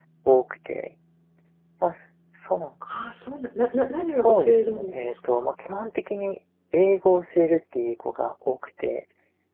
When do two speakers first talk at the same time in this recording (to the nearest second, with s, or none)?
4 s